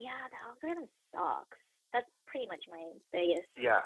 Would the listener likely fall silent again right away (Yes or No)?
No